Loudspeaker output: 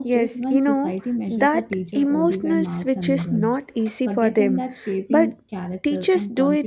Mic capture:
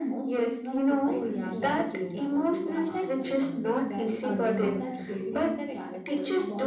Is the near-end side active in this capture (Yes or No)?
Yes